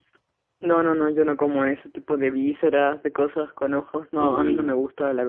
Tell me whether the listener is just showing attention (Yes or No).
Yes